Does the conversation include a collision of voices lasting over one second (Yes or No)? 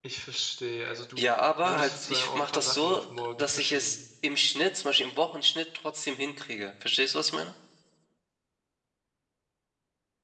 Yes